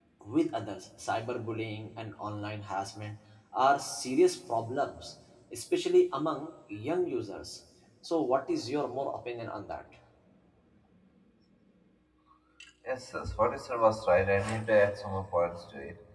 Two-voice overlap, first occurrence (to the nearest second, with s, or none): none